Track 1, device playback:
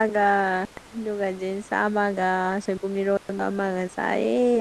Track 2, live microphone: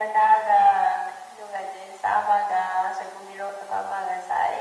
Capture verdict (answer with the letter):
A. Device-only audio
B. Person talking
A